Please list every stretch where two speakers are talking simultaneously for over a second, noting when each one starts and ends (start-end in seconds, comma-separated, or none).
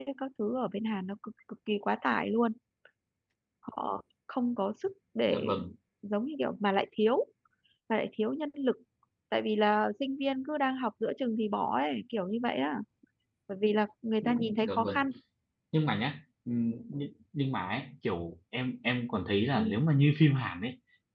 none